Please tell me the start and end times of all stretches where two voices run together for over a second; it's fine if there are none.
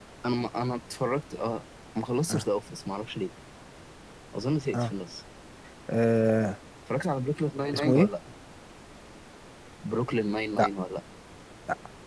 none

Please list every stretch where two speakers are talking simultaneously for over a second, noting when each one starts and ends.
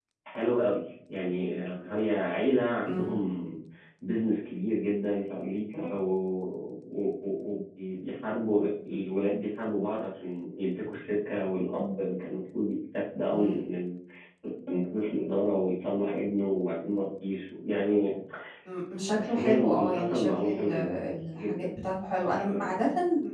19.2-20.7

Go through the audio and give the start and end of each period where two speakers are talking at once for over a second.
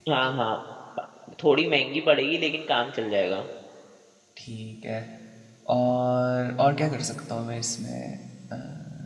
none

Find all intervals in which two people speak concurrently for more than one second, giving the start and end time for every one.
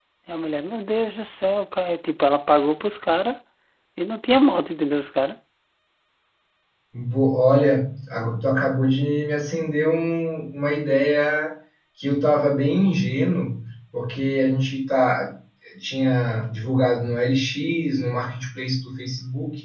none

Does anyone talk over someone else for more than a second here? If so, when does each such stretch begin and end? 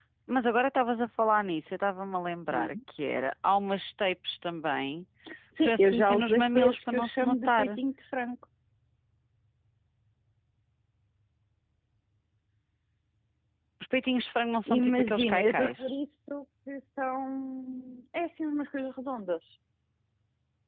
5.6-7.8, 14.7-15.9

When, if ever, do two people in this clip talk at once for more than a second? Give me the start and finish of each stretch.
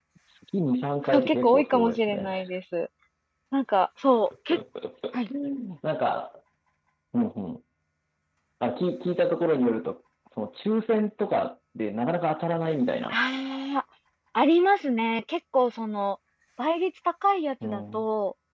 1.0-2.4

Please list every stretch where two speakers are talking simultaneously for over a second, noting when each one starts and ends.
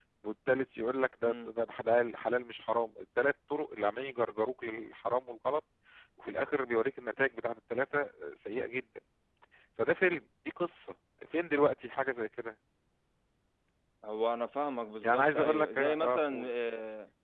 15.0-16.5

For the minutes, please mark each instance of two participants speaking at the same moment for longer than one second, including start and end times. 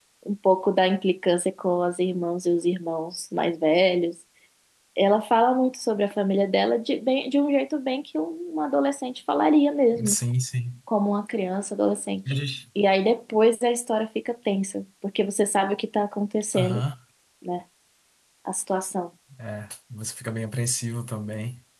none

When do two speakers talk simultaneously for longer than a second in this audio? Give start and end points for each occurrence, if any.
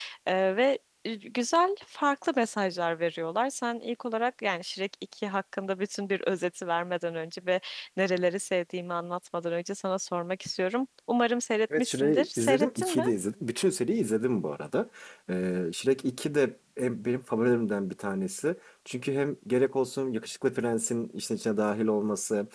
11.8-13.0

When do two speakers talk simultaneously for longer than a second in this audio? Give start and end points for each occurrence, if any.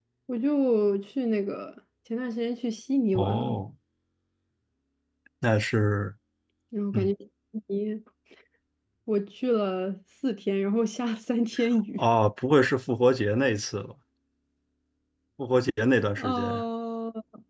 none

